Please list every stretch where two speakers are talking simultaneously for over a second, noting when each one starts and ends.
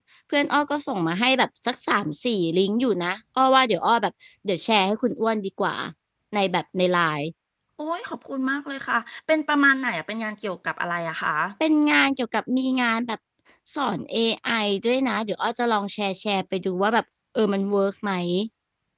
none

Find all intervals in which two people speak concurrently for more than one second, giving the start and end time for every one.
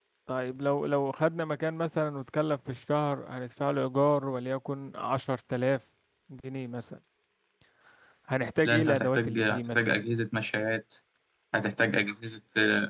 8.6-10.0

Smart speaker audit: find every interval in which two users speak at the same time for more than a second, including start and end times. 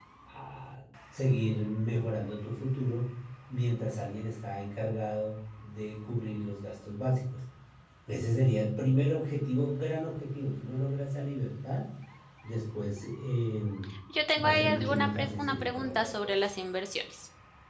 14.4-16.3

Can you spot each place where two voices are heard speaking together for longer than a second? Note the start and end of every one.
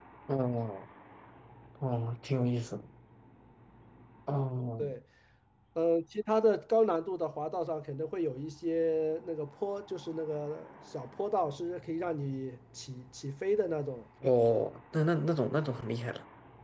none

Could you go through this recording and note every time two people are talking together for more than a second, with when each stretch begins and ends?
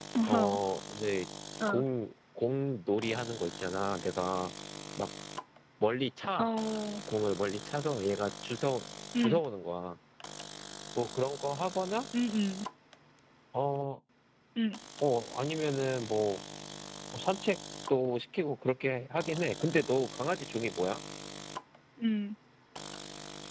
none

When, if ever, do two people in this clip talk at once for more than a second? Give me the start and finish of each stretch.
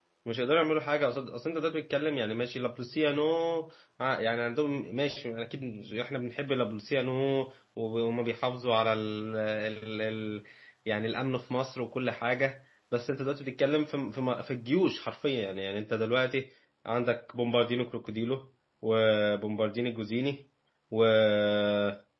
none

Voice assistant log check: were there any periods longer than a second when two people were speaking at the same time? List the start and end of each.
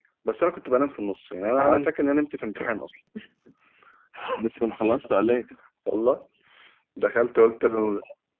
none

